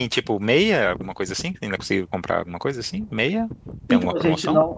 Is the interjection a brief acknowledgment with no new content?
No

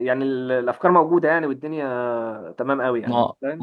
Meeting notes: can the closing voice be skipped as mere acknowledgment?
No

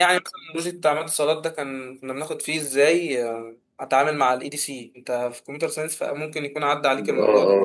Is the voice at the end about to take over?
Yes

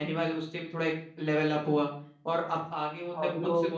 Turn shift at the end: No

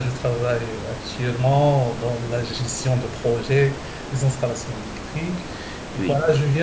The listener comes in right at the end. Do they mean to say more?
No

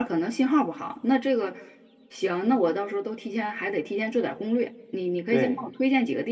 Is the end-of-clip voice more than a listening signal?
No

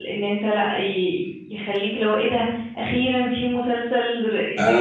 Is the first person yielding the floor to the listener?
Yes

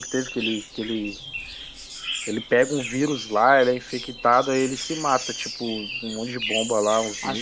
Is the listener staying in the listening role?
No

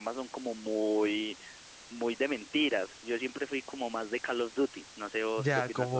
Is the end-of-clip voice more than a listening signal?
Yes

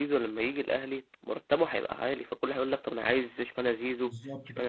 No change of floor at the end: No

